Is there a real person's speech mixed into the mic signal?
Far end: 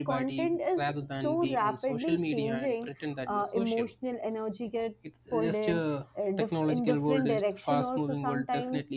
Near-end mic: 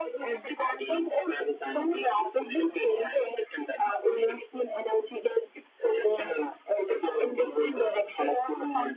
No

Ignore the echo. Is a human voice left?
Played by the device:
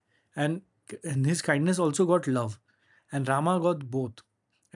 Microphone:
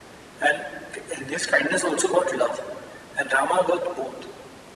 No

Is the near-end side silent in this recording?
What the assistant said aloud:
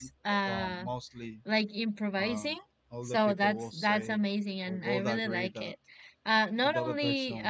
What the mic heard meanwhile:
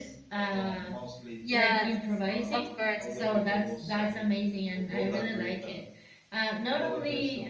No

